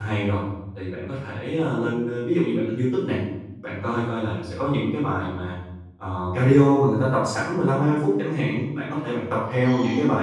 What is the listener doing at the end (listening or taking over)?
listening